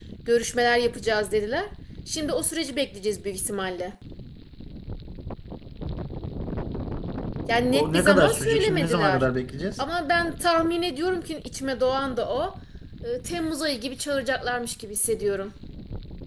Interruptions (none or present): present